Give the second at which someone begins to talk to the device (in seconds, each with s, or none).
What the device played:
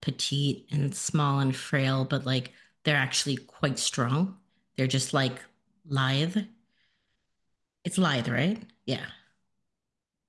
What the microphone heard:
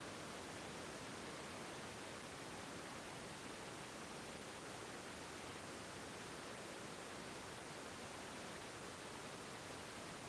none